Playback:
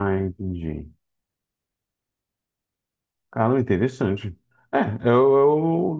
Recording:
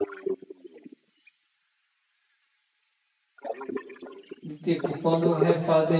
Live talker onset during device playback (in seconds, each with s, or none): 4.4 s